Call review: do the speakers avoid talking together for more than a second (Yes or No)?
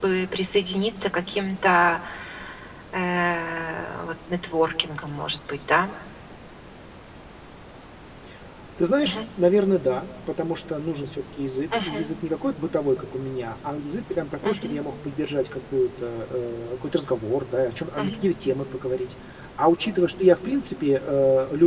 Yes